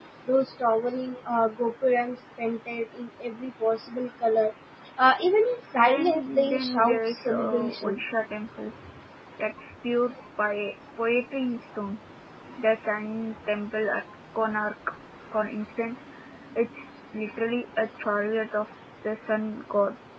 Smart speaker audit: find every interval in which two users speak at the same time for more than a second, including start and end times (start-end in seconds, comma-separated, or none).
5.8-8.0